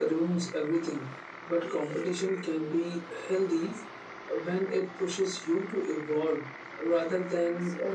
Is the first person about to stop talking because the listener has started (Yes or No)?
Yes